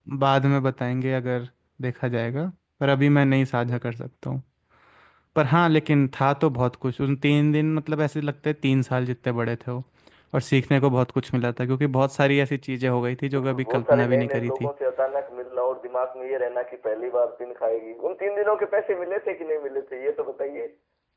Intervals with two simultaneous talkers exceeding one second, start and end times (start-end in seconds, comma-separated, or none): 13.4-14.7